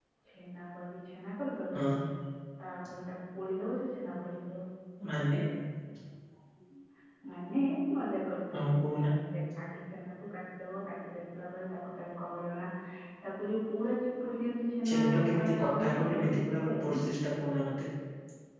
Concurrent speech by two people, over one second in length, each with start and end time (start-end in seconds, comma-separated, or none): 14.9-17.0